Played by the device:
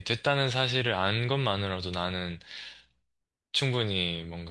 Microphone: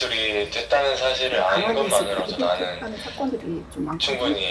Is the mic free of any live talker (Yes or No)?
No